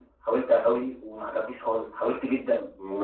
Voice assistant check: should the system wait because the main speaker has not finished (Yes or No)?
No